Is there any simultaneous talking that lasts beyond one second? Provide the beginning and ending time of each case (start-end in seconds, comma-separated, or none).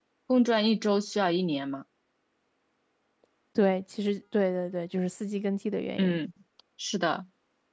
none